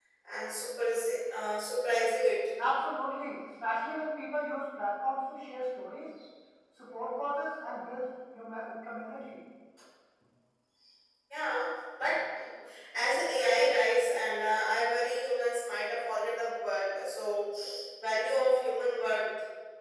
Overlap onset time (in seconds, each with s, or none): none